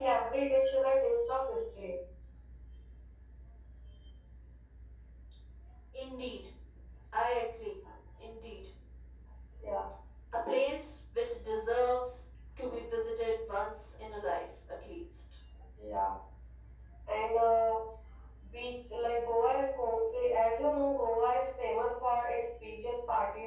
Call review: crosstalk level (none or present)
none